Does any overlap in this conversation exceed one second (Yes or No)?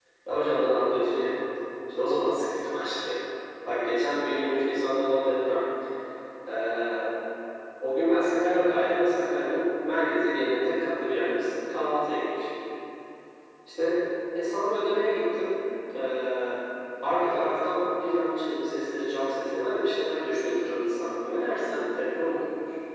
No